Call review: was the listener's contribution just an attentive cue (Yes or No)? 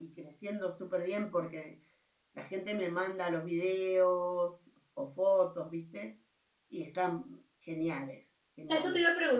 No